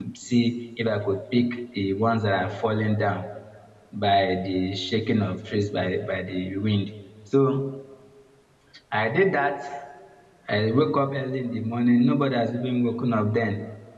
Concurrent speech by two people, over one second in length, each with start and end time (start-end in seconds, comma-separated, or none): none